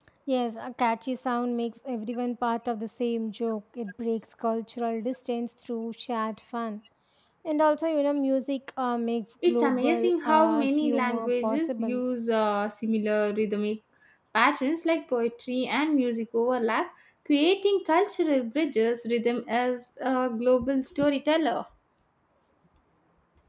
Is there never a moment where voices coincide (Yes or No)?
No